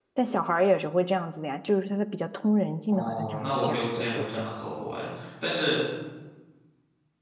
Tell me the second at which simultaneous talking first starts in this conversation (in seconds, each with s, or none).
2.9 s